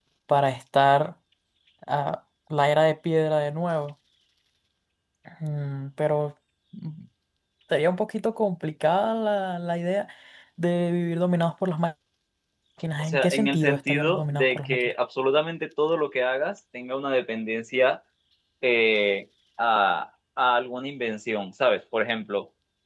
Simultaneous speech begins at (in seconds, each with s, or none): 13.0 s